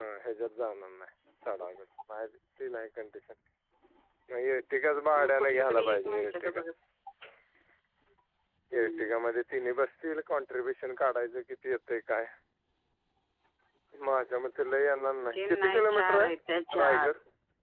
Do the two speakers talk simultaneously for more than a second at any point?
Yes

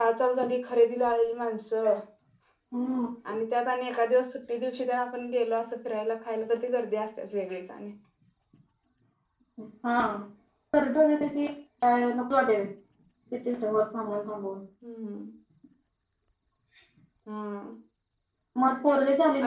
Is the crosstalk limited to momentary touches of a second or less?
Yes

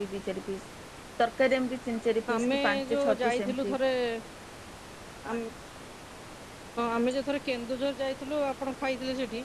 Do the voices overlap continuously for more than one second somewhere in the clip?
Yes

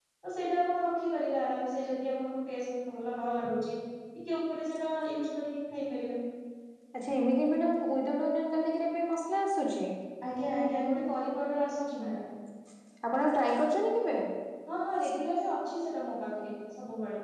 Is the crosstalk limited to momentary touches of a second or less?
Yes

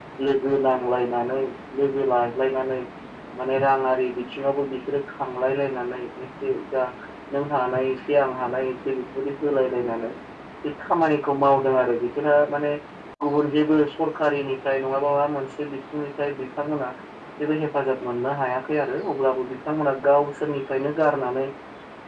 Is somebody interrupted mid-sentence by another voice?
No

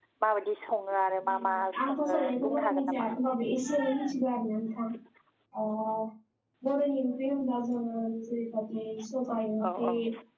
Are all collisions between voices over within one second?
No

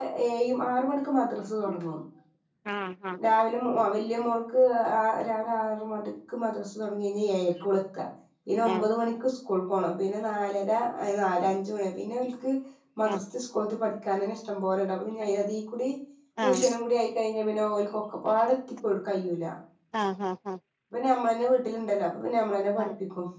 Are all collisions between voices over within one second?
Yes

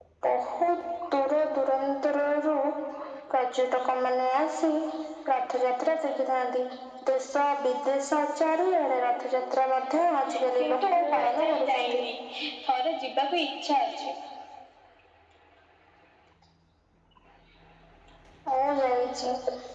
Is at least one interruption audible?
Yes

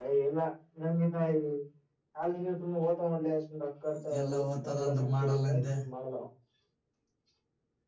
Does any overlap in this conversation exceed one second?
Yes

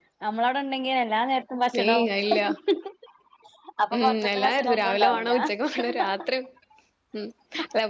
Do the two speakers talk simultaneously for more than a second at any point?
Yes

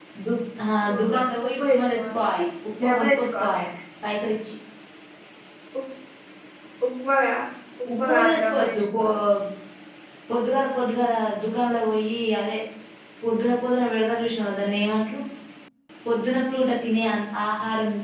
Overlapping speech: Yes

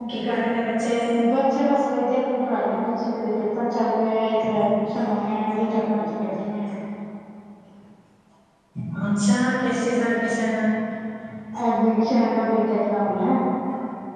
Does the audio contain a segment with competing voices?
No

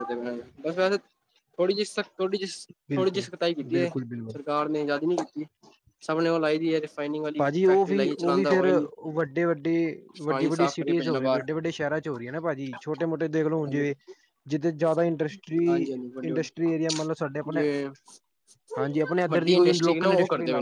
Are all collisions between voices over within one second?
No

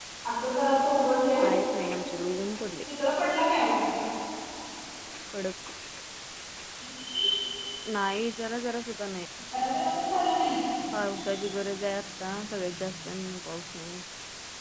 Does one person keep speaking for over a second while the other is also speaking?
No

